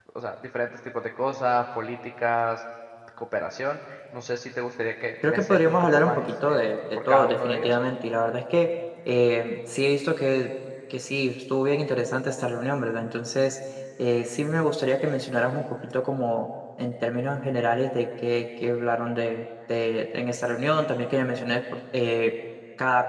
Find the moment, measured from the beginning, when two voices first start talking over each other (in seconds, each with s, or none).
5.2 s